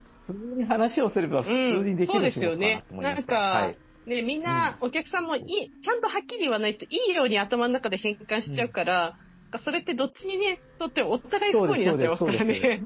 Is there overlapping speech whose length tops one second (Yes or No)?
Yes